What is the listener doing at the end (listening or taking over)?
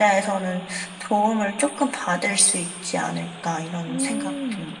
taking over